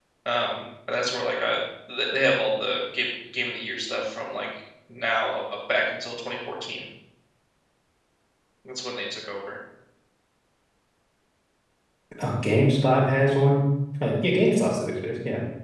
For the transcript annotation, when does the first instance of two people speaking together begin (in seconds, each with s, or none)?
none